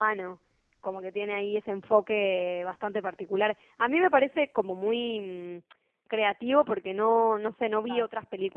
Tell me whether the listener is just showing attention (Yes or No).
Yes